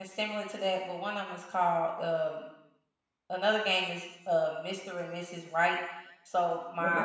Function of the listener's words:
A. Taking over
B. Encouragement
B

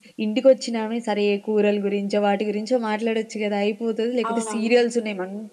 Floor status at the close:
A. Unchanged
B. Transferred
A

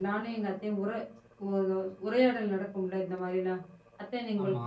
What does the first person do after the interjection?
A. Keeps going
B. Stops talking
A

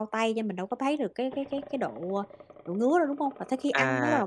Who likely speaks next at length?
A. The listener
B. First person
A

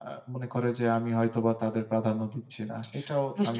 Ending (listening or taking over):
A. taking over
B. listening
A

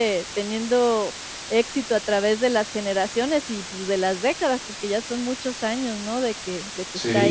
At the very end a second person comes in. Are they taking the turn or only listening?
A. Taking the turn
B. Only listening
A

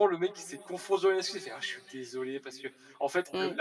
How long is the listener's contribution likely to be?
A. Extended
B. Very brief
B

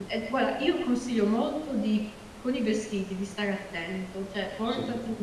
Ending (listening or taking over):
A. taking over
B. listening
B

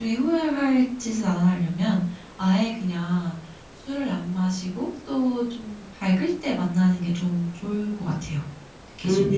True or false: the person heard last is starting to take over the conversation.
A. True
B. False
A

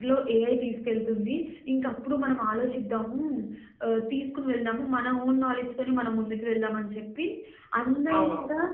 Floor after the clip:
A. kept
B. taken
A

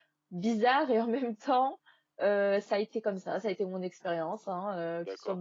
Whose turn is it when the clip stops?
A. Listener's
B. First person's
B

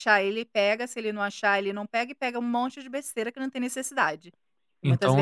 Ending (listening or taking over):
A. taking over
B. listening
A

